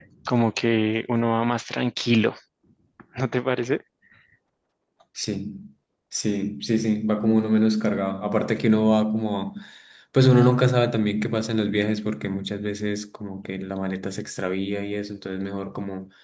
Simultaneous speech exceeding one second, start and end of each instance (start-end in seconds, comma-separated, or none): none